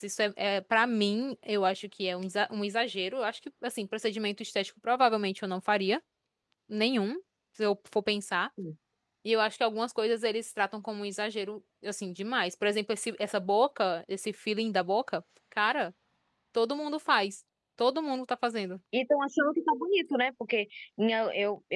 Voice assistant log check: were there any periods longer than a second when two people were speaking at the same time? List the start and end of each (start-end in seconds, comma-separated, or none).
none